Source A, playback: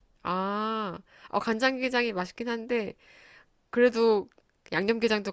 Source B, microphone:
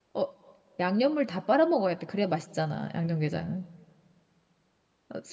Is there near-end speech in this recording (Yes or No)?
Yes